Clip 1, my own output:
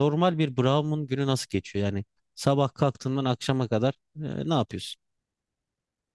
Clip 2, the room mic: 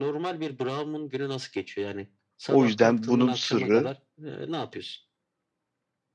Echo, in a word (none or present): present